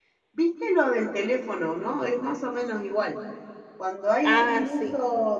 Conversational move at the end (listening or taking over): listening